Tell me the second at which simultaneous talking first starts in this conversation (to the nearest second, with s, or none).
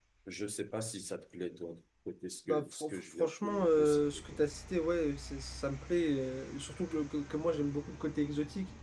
2 s